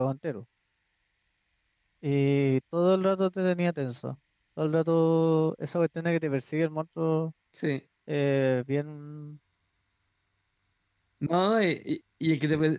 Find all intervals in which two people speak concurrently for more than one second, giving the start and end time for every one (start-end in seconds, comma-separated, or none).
none